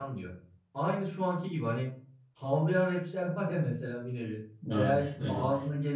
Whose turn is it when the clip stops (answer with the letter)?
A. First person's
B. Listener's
A